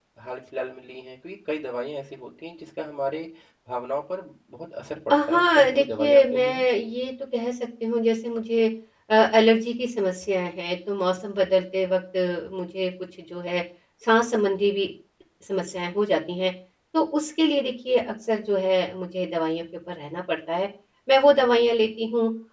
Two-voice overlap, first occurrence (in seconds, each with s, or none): 5.1 s